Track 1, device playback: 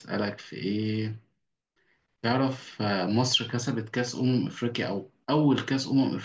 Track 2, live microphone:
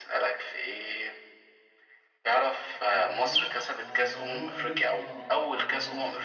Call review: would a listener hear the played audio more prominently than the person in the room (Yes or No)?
Yes